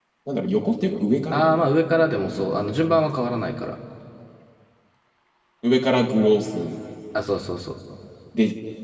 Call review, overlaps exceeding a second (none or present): present